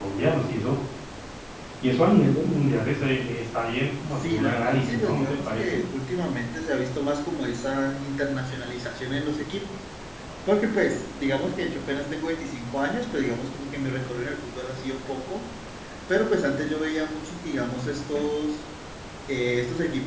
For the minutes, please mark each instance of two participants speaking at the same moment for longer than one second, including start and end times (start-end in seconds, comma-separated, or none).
4.2-5.8